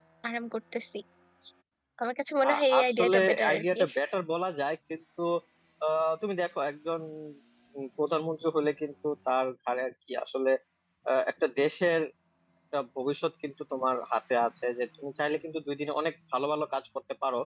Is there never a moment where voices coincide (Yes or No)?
No